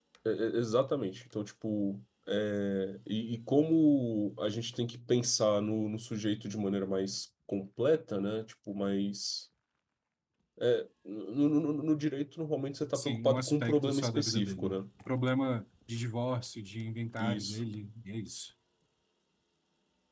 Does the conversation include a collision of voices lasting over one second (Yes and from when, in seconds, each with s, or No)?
Yes, from 12.9 s